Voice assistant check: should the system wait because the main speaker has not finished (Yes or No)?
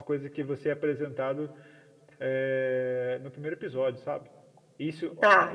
Yes